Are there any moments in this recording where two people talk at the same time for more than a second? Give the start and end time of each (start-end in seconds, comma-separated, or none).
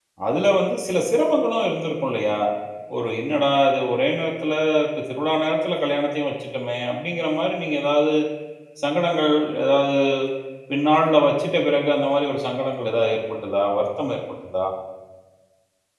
none